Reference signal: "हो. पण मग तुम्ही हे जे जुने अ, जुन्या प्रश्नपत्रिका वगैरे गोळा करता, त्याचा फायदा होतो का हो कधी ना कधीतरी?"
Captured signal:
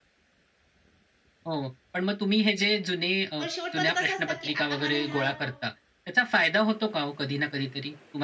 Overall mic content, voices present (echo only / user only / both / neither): both